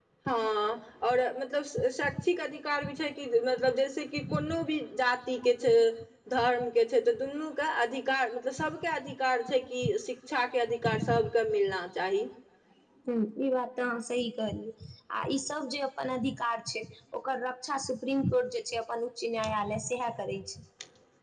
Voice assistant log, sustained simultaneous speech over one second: none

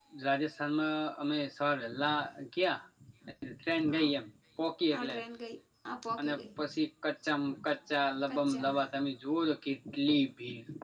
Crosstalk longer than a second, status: none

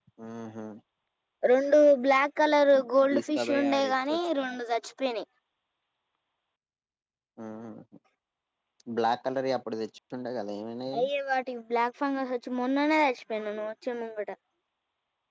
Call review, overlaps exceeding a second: present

